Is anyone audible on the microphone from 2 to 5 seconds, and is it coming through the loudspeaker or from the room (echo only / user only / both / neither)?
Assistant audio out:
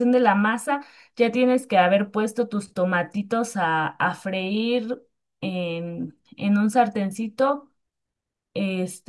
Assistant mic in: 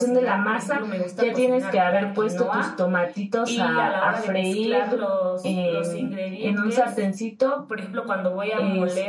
both